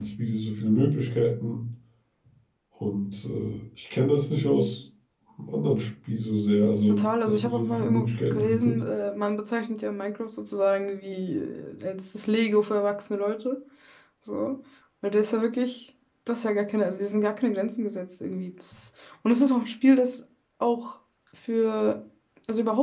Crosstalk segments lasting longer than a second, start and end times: 6.9-8.8

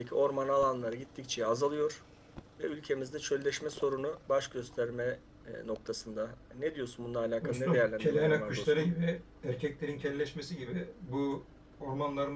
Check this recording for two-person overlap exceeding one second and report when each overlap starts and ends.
7.4-8.9

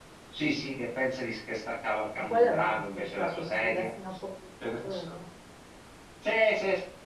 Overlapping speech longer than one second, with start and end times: 2.1-3.9

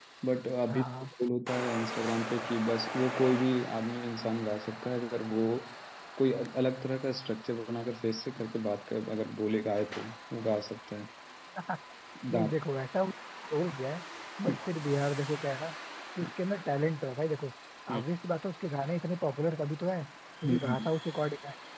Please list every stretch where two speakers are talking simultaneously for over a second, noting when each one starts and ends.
none

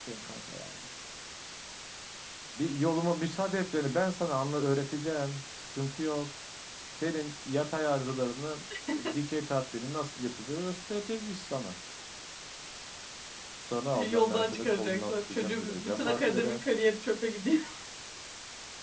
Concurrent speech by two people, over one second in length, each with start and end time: 13.9-16.6

